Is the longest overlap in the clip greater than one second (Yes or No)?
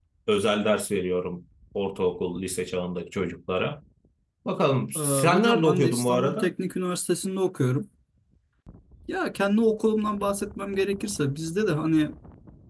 Yes